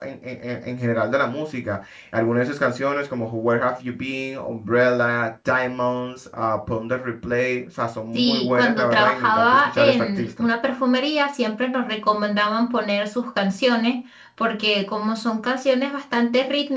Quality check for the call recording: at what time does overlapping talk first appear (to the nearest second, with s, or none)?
8 s